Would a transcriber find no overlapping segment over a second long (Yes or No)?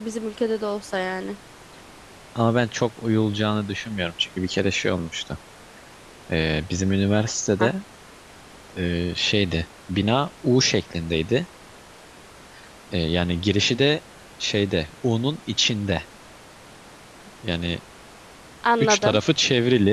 Yes